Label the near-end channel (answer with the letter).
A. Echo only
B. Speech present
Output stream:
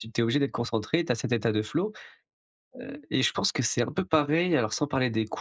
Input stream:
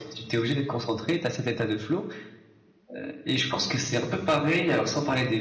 A